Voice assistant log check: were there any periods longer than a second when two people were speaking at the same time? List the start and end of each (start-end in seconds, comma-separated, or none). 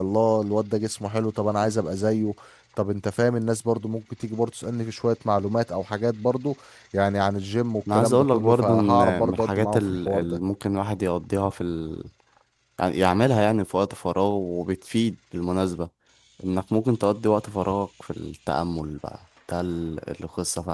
7.9-10.4